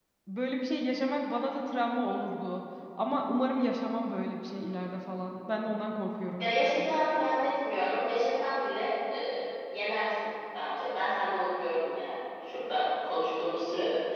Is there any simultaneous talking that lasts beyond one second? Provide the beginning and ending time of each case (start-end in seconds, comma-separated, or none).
none